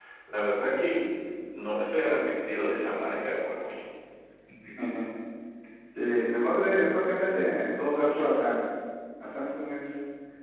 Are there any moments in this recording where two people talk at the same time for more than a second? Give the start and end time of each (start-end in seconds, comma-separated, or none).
none